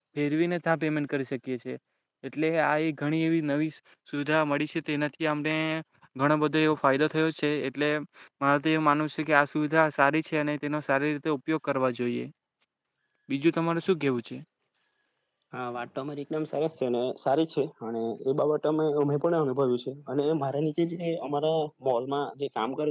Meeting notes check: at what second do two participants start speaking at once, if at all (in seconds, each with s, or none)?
none